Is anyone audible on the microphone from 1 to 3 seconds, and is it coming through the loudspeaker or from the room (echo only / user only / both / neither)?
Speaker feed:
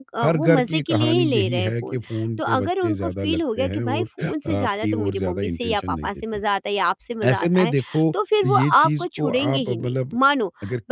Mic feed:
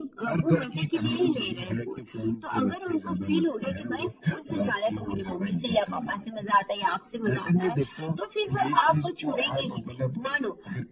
echo only